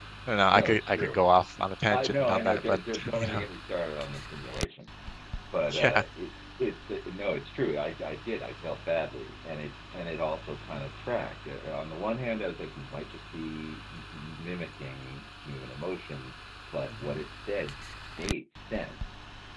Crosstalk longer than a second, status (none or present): present